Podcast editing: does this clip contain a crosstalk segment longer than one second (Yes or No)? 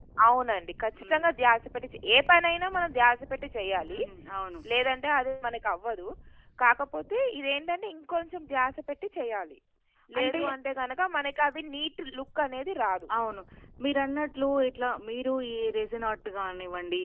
No